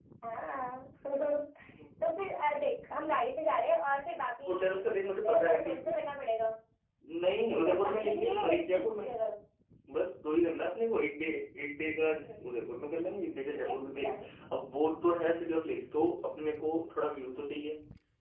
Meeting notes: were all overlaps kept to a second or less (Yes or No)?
No